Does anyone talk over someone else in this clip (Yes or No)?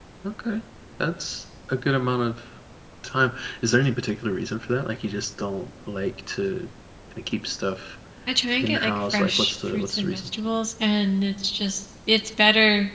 Yes